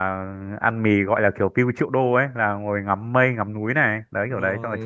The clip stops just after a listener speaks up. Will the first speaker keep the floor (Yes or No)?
No